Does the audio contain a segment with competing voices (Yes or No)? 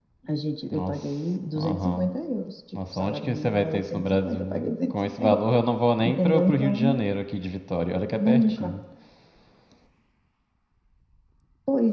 Yes